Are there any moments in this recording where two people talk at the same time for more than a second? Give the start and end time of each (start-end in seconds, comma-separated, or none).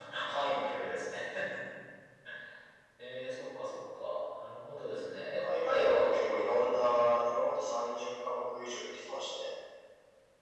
5.4-7.4